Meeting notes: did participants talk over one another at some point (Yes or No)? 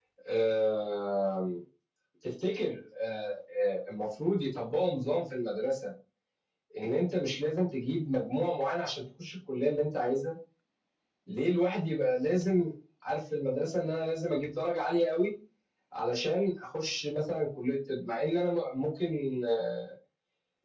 No